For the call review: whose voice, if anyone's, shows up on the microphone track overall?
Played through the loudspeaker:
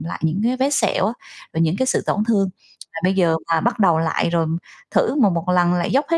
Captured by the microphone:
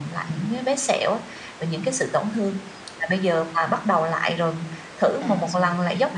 both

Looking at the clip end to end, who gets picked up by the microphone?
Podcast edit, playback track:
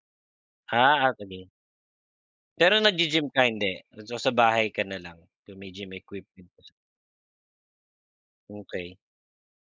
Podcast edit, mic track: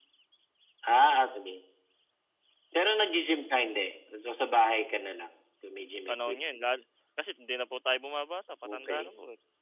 both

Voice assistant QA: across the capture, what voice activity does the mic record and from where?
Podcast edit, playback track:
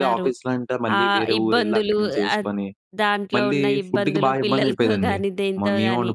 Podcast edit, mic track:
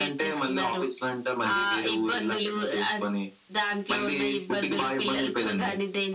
echo only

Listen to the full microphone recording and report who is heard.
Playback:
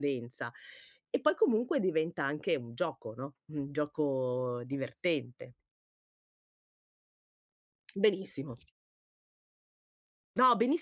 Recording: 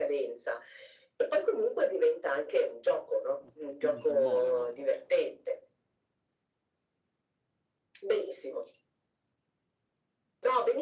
both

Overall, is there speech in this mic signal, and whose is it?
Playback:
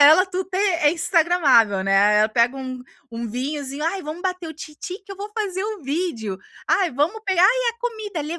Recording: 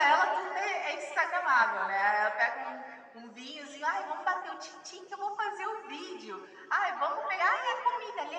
echo only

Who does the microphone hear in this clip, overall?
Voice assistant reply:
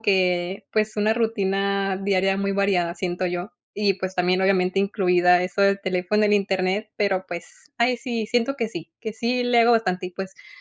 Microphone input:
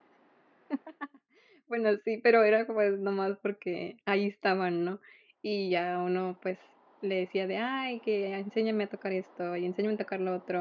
user only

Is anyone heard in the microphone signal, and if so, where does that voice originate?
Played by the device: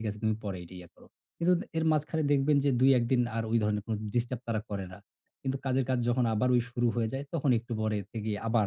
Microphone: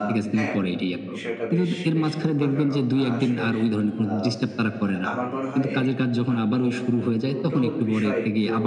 both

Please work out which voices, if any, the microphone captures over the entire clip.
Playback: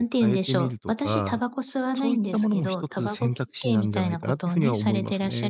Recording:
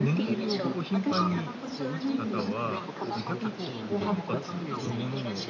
both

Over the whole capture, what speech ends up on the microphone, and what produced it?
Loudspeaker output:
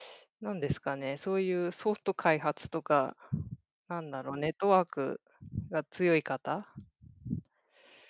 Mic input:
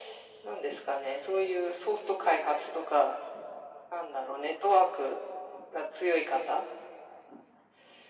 echo only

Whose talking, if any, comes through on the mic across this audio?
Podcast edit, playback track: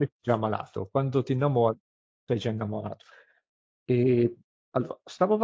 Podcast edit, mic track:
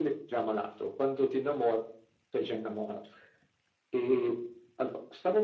echo only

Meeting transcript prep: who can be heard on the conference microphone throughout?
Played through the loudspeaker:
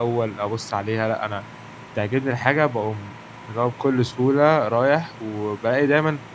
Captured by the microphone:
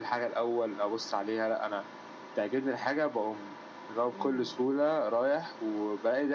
both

